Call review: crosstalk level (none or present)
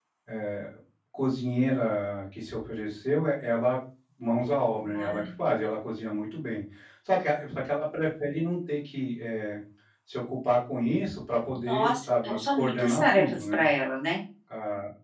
present